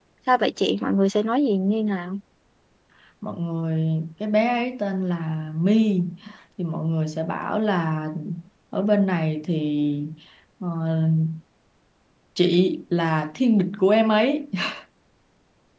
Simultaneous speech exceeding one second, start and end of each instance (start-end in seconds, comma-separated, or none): none